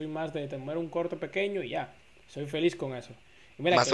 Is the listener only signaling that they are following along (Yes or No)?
Yes